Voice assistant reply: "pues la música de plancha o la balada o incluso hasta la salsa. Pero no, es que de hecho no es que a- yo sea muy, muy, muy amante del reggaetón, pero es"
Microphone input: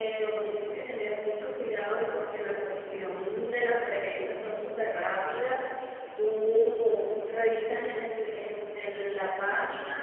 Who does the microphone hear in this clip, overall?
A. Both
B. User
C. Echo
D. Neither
B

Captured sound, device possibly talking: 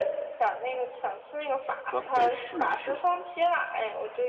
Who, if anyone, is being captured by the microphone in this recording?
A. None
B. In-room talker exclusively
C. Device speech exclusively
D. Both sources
D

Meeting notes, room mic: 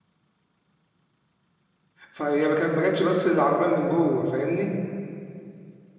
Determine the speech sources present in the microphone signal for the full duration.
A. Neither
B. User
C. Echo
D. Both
B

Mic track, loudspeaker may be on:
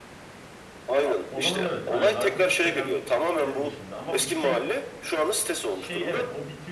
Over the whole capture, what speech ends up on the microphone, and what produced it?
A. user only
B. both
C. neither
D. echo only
B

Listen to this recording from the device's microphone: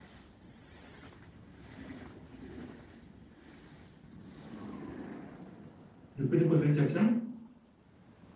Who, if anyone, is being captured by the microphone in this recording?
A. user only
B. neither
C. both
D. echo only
A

